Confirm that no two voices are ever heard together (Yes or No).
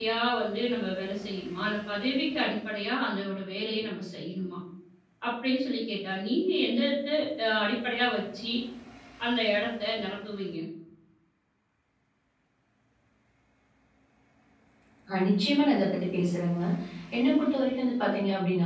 Yes